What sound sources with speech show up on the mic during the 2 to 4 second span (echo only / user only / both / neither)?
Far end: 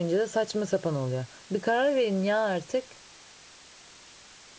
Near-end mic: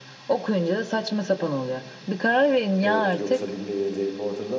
both